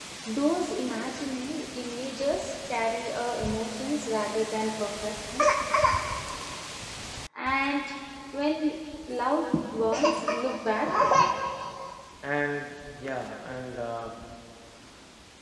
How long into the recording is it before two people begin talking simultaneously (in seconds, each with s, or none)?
none